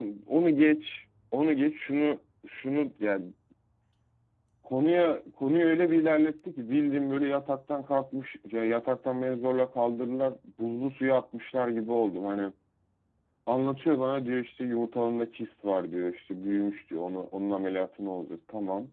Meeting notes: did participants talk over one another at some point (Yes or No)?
No